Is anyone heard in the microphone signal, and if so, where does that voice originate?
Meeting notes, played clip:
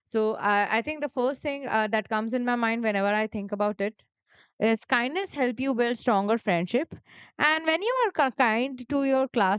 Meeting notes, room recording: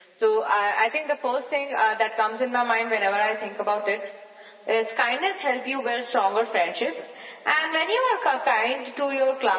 echo only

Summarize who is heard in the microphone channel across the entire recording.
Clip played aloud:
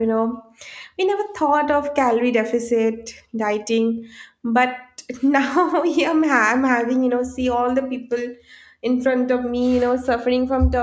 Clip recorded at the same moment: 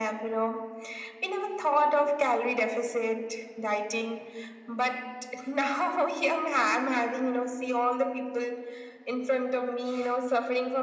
echo only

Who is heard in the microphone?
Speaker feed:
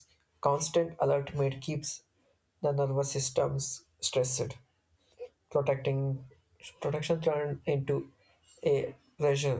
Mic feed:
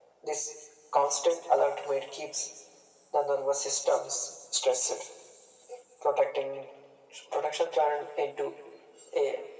echo only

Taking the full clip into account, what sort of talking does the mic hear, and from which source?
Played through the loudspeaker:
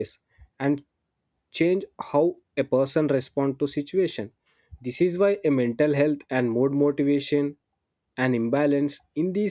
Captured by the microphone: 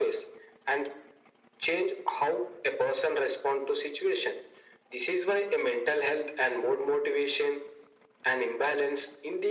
echo only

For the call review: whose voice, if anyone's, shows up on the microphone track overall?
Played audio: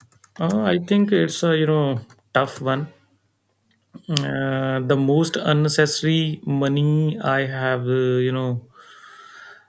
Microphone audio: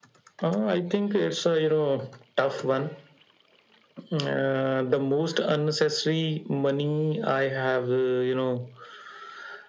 echo only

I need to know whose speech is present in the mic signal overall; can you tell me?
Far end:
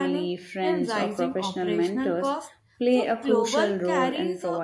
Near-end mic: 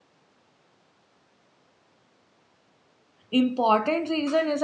user only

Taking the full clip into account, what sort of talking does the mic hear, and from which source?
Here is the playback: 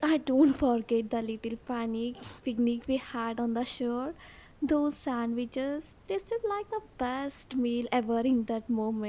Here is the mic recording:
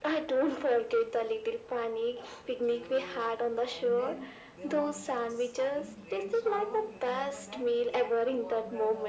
both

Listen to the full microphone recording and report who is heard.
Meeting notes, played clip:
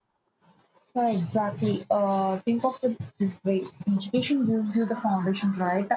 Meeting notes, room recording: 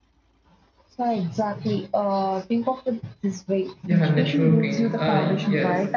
both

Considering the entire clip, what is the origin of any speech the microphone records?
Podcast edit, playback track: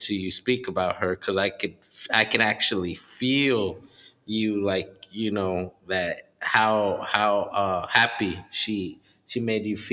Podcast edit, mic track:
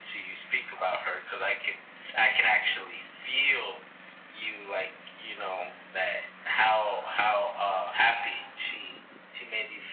echo only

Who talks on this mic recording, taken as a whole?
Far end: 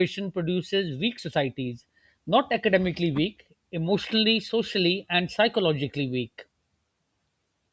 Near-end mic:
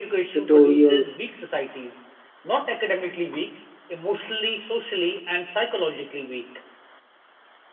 both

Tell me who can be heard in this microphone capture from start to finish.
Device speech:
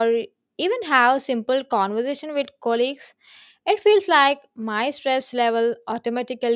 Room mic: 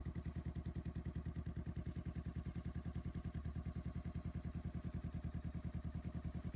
neither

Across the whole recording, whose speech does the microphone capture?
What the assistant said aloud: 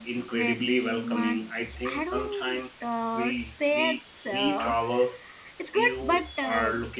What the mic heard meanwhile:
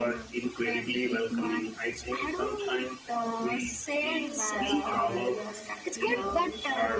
both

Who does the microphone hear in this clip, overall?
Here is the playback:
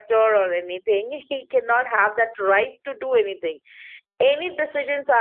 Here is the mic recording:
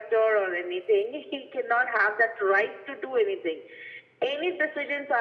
echo only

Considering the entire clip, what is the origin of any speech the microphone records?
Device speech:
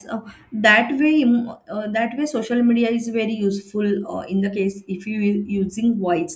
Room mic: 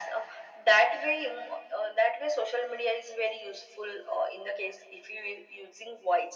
echo only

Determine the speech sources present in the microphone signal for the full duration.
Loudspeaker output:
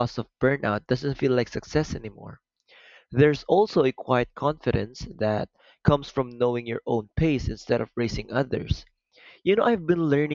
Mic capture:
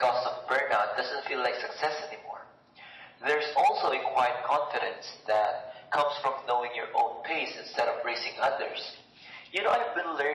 echo only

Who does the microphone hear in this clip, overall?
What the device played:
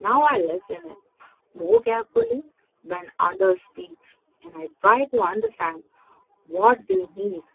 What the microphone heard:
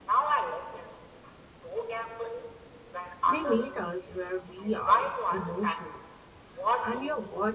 both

